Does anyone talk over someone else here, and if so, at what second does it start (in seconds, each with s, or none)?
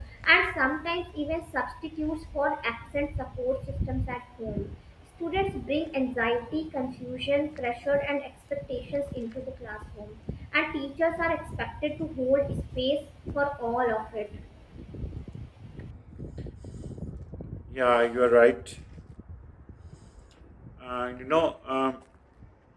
none